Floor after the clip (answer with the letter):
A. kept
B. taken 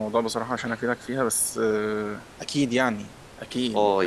B